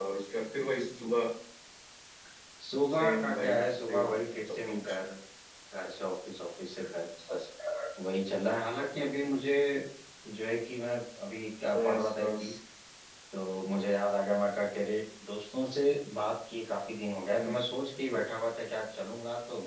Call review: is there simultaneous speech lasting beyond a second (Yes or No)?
Yes